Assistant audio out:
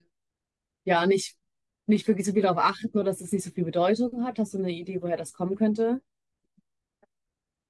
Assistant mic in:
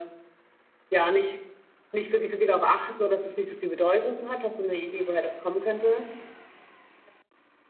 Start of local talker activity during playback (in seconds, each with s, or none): none